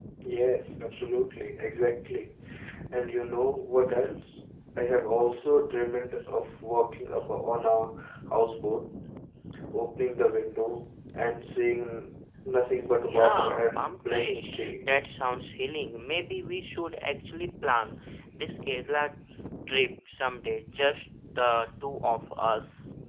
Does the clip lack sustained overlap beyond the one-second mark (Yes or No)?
No